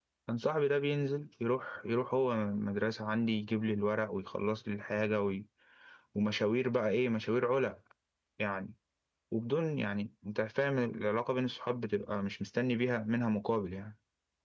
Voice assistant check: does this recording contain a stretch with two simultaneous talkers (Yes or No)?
No